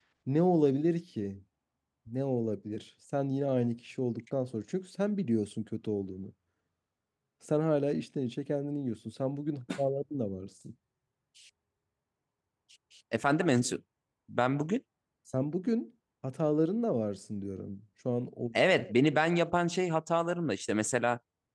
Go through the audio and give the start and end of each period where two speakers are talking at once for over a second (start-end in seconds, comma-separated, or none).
none